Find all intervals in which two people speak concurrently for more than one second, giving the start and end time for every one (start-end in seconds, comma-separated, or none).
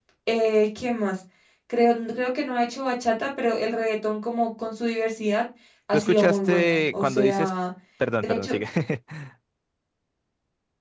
5.9-7.5